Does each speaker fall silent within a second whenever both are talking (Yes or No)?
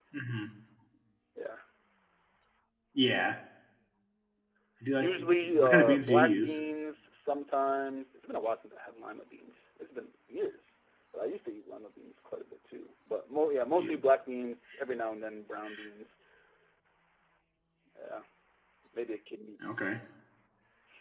No